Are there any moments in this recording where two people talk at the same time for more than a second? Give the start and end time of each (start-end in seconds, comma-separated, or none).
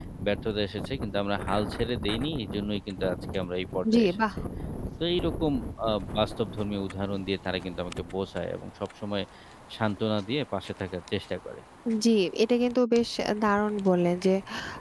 none